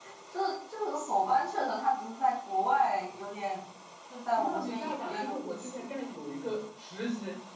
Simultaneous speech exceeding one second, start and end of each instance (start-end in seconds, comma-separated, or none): 4.4-5.7